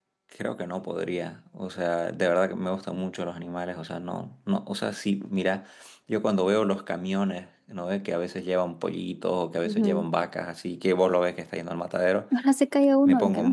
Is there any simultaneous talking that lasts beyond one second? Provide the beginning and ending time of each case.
none

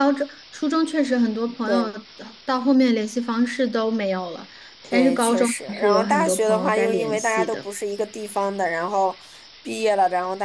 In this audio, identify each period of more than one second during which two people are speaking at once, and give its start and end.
4.9-7.6

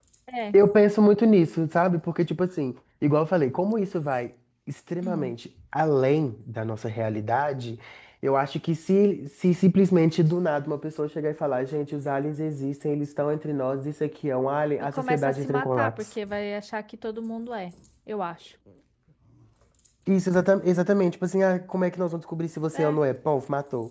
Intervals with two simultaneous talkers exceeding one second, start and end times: 14.8-16.1

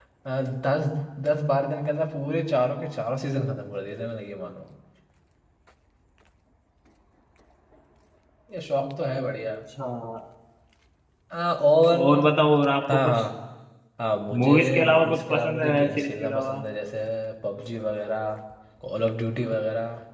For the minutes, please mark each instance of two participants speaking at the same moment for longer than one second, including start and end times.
14.4-16.6

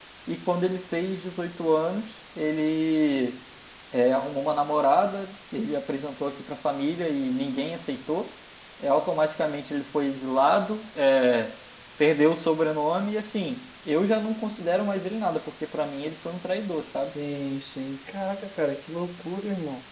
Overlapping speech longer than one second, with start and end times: none

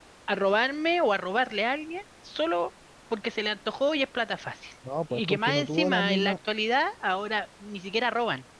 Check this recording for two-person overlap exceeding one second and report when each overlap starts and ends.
5.1-6.3

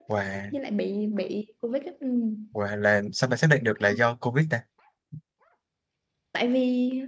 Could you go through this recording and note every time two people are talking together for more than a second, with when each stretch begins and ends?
none

